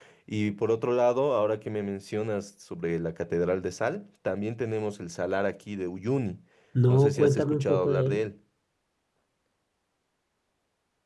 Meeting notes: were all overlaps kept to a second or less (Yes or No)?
No